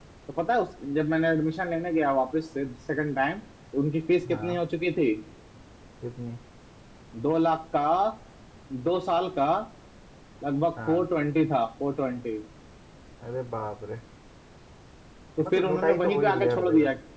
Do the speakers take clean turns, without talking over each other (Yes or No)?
No